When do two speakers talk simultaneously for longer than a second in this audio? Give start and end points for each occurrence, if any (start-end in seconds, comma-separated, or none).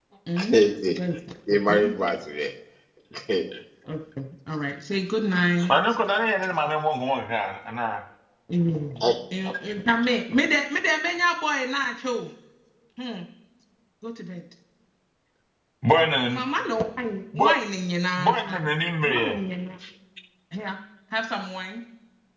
none